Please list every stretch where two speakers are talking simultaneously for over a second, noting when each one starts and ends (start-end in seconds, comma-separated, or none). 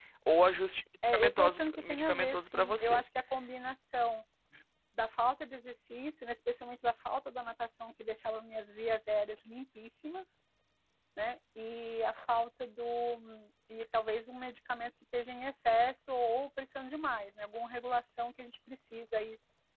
1.1-3.0